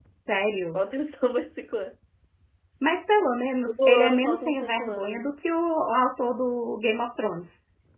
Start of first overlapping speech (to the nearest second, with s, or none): 4 s